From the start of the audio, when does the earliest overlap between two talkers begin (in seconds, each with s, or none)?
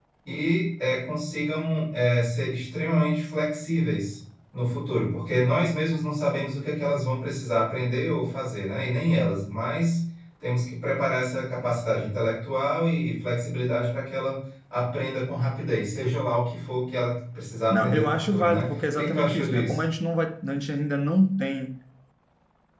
17.7 s